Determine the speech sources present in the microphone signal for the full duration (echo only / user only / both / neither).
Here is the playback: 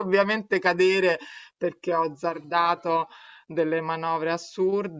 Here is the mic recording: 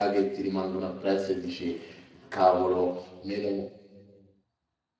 user only